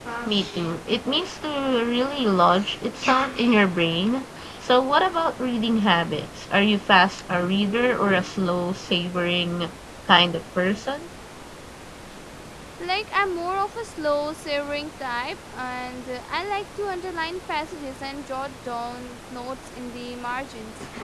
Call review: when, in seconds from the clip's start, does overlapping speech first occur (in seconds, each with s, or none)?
none